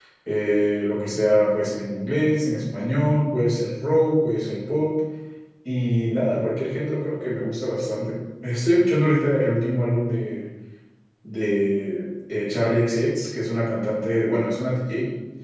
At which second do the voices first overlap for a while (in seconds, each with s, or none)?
none